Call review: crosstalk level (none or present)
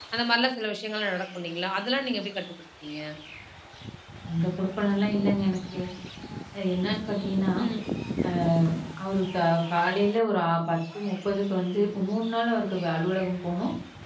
none